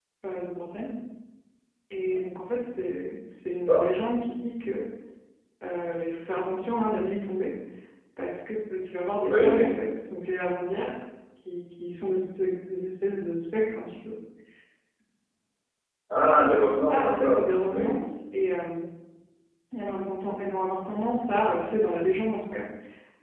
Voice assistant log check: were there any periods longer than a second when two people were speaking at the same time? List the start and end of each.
16.6-17.9

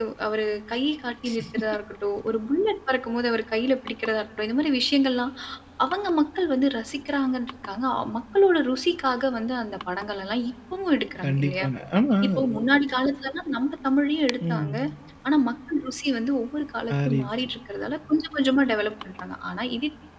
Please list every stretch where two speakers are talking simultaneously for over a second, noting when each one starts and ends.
none

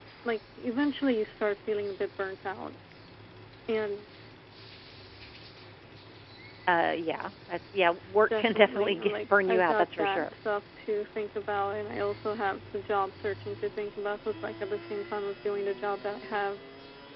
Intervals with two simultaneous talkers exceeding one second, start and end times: 8.4-10.3

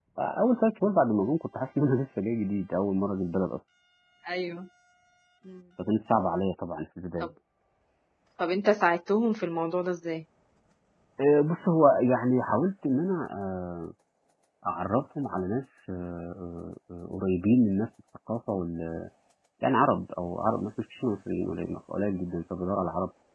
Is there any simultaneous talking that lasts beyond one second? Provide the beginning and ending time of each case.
none

